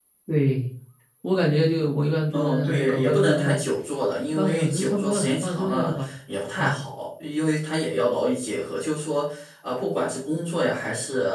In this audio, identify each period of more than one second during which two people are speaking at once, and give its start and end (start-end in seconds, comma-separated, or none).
2.3-3.6, 4.3-6.1